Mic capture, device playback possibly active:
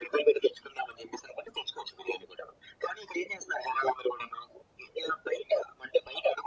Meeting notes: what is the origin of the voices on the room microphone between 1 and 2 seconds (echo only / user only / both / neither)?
echo only